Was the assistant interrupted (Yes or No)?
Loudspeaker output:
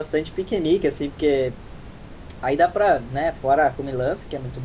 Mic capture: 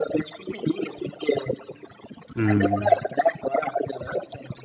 Yes